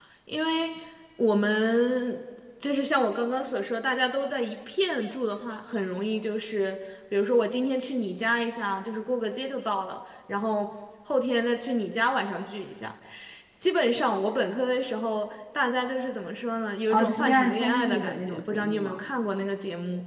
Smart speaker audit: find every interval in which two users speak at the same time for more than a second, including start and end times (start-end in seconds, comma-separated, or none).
16.9-19.0